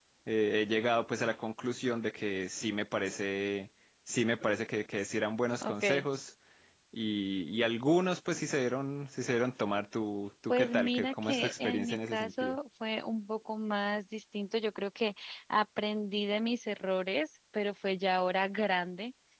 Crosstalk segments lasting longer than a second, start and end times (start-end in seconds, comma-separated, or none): 10.5-12.6